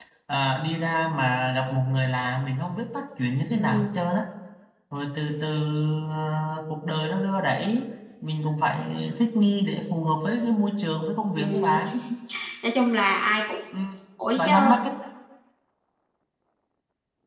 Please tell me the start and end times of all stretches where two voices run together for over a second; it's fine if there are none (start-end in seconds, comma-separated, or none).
none